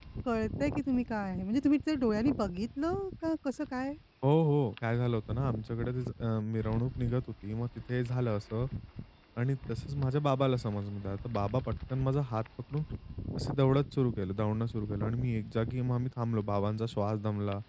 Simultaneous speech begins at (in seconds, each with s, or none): none